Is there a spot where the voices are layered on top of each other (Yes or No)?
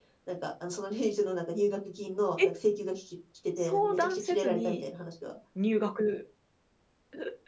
Yes